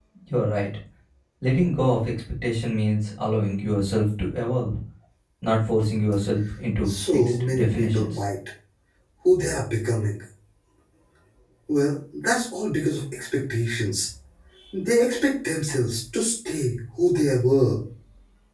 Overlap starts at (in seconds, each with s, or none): 6.9 s